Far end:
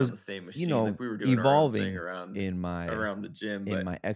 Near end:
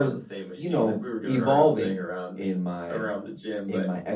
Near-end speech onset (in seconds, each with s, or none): none